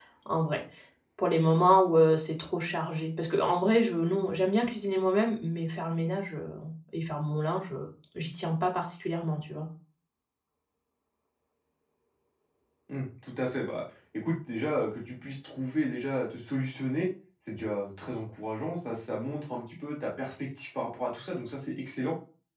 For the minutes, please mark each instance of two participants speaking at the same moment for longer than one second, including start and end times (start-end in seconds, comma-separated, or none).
none